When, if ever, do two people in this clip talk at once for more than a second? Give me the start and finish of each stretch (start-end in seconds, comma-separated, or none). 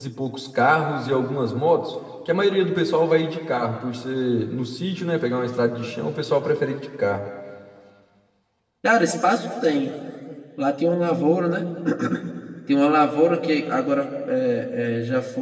none